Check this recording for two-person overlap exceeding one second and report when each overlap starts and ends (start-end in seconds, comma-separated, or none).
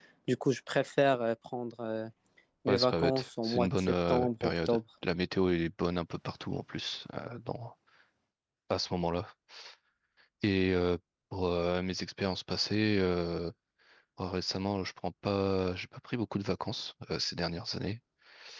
2.7-4.8